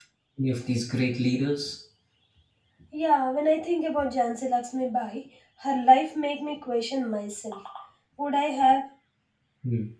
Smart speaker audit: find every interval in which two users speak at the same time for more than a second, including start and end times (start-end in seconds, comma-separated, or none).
none